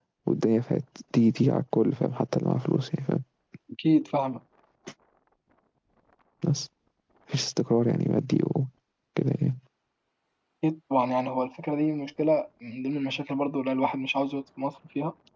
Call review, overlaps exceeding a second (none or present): none